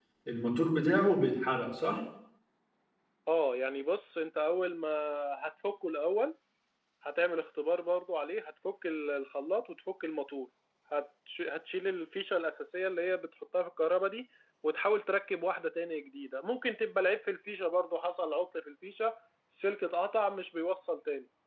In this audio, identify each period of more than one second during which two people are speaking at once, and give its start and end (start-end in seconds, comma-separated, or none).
none